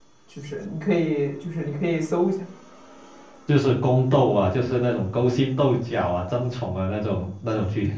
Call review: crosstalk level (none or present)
none